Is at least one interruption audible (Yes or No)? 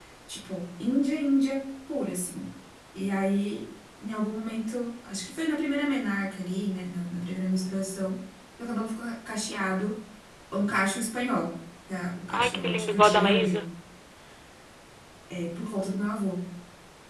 Yes